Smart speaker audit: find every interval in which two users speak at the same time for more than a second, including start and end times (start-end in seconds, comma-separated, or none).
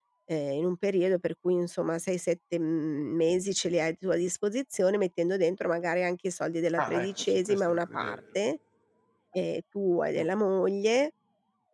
6.8-8.2